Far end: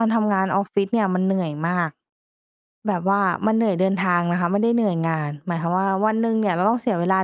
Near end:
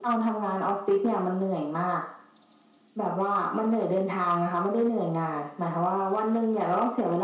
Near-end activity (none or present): none